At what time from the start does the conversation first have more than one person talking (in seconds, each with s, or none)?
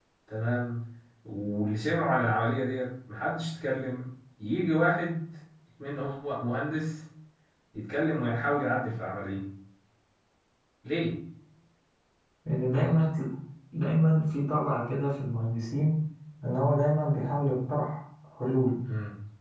none